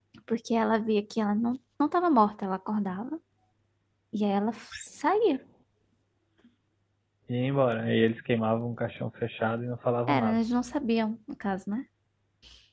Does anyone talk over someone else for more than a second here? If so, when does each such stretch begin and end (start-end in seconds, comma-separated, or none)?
none